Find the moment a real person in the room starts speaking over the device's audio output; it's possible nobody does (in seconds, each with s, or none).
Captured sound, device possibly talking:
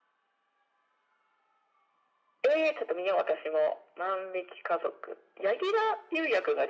none